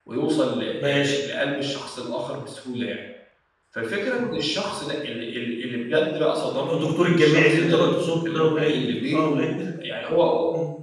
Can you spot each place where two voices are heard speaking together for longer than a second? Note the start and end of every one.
6.6-9.5

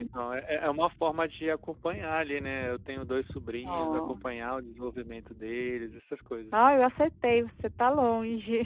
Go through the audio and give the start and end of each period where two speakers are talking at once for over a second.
none

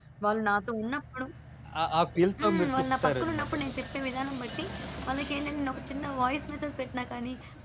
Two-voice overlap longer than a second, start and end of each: 2.4-3.8

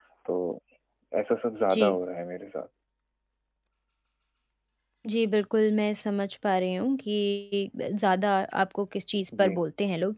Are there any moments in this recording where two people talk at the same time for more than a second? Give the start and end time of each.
none

